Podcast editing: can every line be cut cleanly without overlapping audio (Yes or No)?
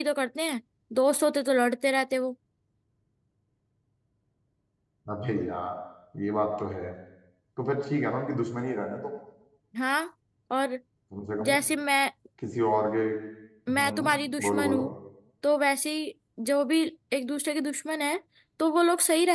No